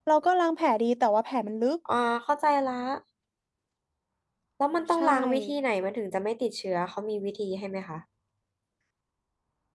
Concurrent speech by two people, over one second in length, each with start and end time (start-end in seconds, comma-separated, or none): none